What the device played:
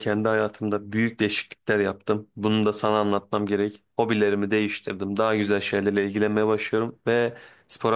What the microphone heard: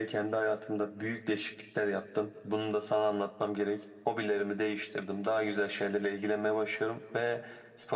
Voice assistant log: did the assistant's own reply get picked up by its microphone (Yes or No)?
Yes